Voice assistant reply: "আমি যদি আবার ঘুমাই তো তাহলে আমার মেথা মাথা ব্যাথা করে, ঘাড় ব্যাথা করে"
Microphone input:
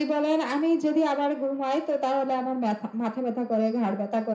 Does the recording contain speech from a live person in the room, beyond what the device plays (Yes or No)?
No